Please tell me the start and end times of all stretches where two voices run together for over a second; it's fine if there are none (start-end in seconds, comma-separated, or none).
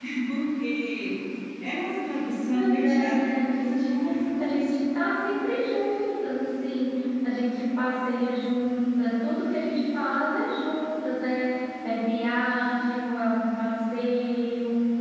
2.5-4.0